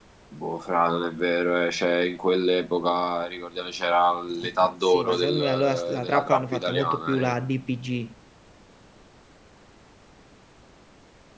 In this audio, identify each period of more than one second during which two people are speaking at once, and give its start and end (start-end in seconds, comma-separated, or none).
4.6-7.3